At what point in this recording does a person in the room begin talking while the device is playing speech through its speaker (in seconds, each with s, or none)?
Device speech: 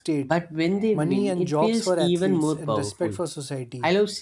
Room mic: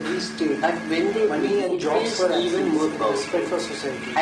none